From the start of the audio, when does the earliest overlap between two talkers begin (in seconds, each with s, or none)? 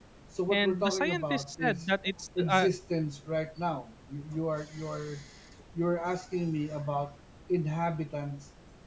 0.5 s